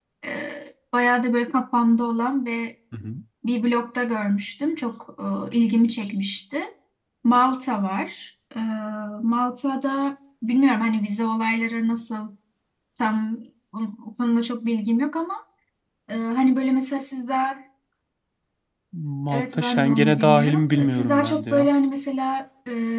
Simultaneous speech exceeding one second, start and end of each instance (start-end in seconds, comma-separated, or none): 19.3-21.7